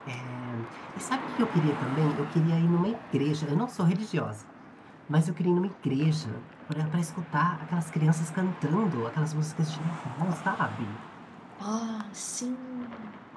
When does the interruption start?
none

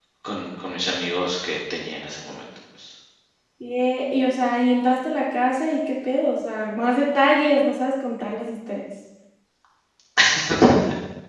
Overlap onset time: none

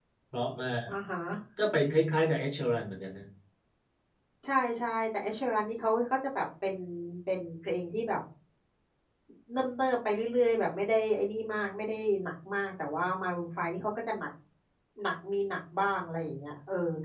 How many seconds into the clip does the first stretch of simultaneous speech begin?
none

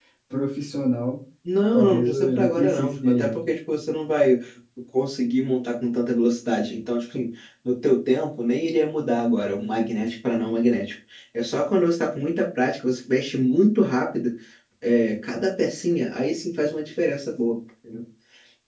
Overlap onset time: 1.7 s

